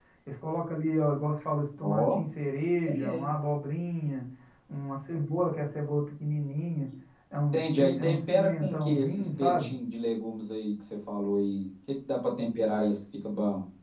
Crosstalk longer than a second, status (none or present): present